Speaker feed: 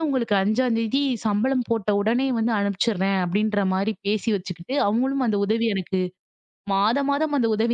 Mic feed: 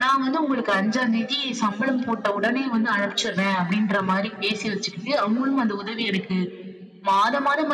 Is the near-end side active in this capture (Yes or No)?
No